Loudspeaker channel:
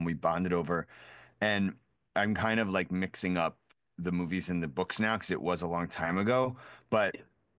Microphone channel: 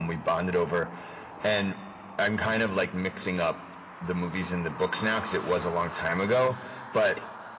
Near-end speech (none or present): none